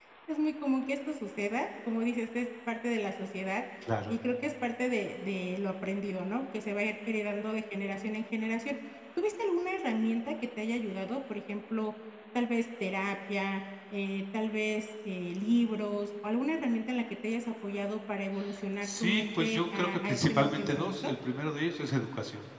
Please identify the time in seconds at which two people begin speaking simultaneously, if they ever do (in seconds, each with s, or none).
18.8 s